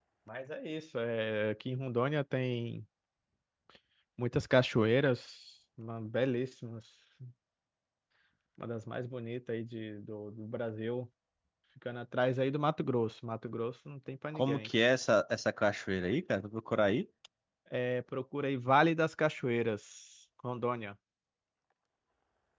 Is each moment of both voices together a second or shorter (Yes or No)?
Yes